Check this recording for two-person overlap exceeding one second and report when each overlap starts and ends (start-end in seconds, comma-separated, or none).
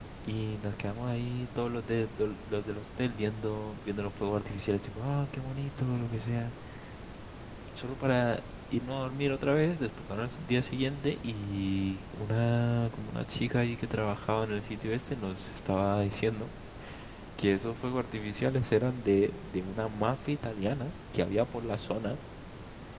none